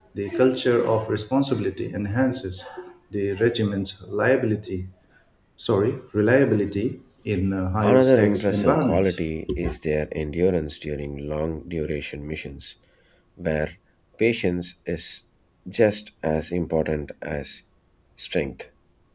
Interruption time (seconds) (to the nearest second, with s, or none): 8 s